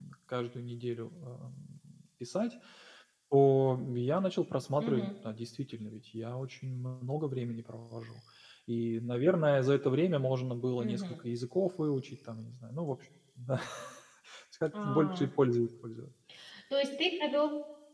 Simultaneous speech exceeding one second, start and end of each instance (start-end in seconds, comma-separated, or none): none